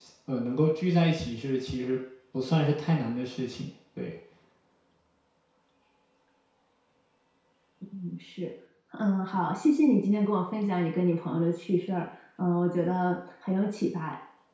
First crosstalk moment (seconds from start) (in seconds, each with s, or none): none